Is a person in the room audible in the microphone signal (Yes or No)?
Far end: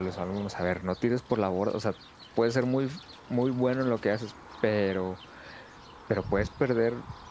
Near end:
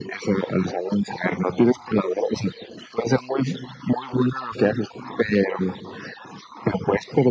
No